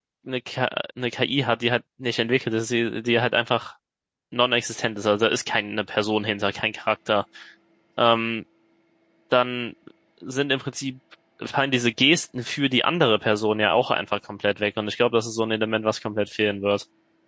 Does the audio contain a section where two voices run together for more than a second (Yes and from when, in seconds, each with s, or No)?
No